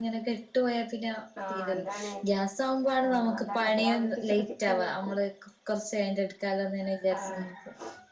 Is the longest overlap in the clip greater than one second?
Yes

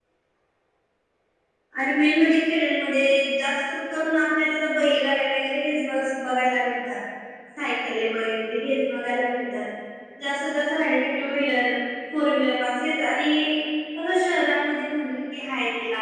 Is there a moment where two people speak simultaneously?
No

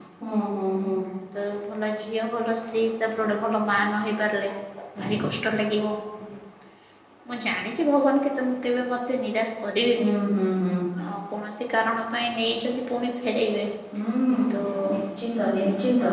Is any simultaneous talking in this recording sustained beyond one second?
No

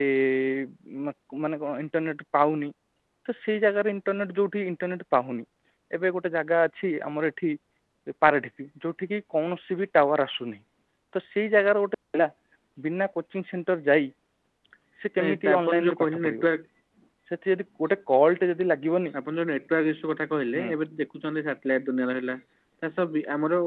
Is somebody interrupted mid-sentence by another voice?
Yes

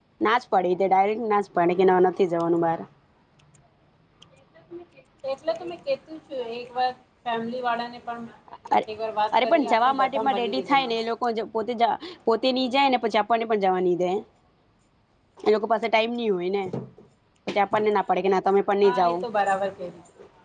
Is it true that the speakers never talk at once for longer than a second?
No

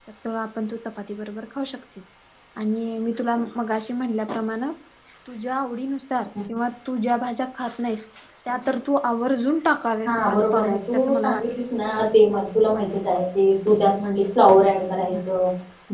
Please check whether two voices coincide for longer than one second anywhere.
Yes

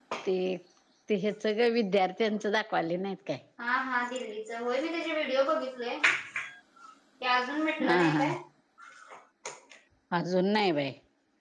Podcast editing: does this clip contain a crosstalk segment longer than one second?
No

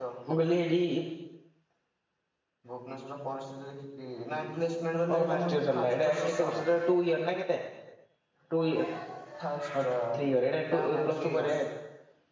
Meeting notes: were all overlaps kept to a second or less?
No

